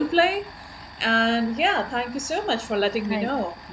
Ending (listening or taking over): listening